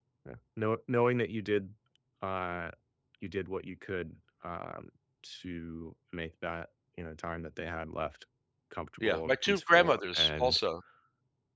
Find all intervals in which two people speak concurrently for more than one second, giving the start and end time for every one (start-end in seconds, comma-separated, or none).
9.0-10.6